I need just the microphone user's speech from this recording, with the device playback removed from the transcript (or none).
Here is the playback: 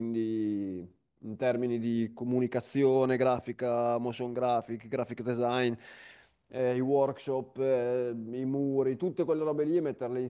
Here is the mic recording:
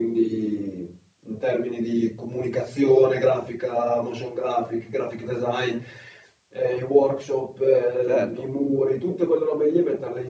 Certo,